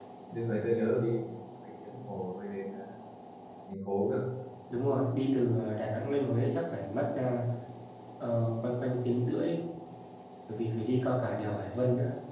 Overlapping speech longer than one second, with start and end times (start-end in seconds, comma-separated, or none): none